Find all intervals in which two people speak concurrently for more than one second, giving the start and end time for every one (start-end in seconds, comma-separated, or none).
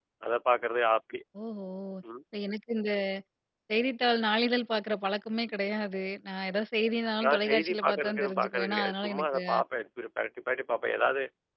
7.2-9.4